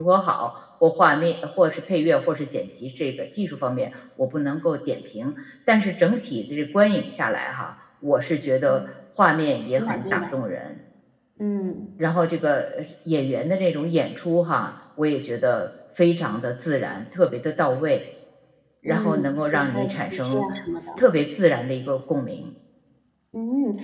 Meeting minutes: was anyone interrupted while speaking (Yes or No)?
Yes